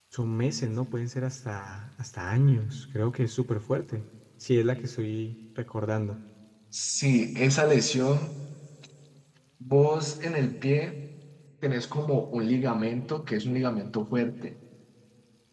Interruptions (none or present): none